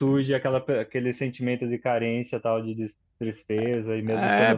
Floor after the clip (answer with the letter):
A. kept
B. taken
B